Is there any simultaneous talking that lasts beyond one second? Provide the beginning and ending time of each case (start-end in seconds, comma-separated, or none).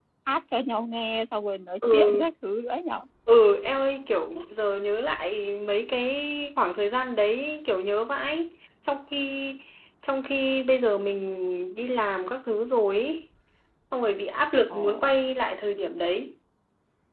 none